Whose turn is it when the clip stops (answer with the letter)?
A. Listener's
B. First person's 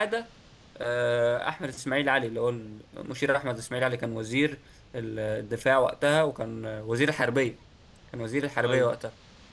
B